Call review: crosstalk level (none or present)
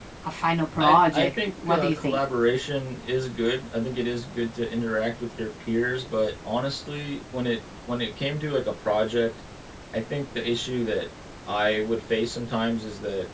present